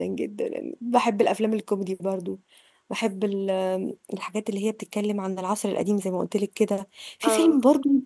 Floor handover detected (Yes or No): No